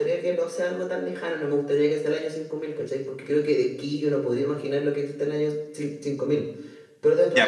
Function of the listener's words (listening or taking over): taking over